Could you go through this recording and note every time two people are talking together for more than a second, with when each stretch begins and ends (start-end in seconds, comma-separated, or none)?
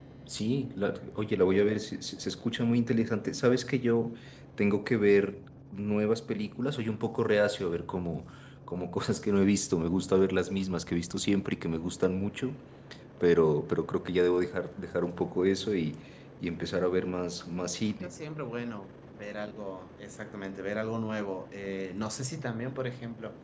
none